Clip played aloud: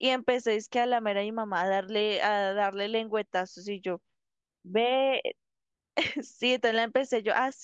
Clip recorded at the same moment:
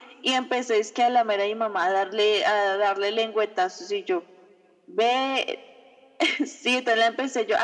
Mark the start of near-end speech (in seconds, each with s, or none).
none